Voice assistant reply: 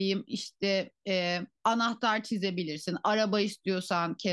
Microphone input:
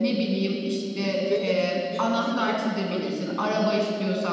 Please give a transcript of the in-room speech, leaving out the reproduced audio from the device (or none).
Peki Hıdrellez bir gün değil mi? Öyle